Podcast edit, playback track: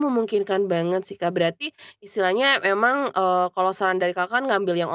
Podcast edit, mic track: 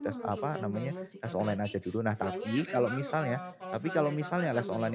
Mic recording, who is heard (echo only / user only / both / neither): both